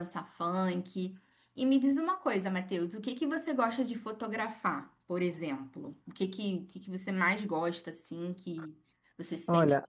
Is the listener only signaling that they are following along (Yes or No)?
No